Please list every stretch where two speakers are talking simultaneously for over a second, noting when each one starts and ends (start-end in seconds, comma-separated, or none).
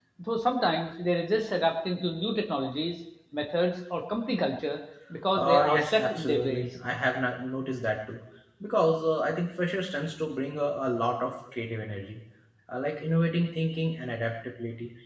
5.3-6.6